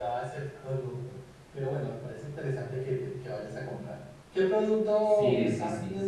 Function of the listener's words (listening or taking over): taking over